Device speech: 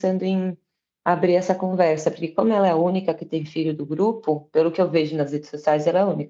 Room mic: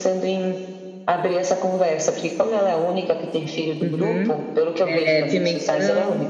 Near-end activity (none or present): present